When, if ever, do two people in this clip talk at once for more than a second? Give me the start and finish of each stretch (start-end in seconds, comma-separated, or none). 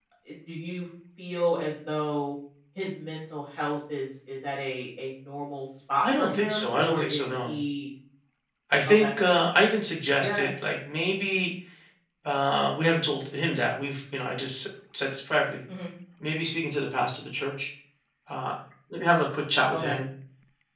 6.0-7.5